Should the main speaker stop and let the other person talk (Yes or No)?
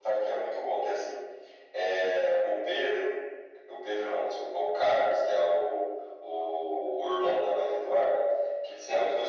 No